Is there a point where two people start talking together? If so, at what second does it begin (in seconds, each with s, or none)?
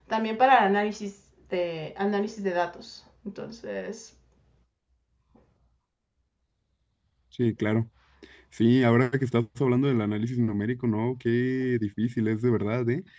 none